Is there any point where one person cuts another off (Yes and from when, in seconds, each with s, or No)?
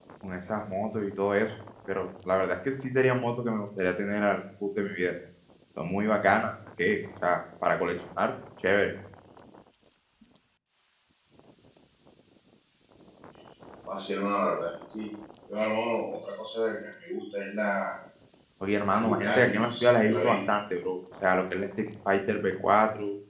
Yes, from 18.8 s